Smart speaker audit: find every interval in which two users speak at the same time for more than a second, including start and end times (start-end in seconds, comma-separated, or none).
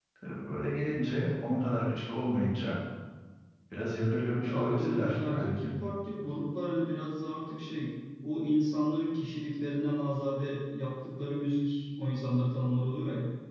4.4-5.7